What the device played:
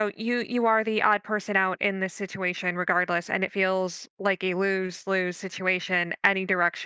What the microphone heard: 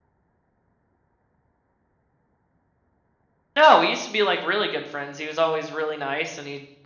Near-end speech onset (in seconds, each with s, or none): 3.6 s